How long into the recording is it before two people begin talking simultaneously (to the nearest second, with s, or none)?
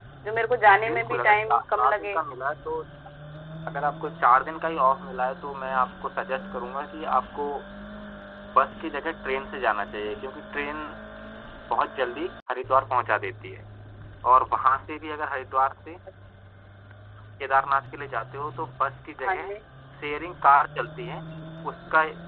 1 s